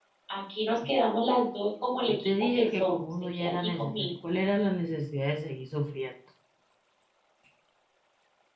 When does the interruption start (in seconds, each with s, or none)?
2.1 s